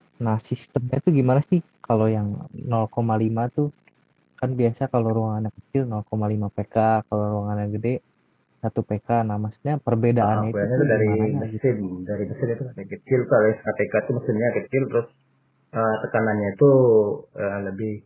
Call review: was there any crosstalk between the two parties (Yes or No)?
Yes